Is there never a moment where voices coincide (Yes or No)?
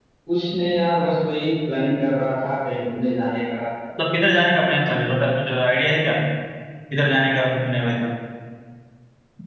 Yes